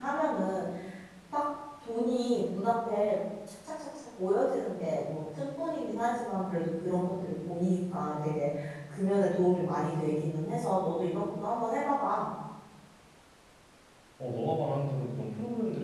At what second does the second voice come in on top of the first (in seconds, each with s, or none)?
none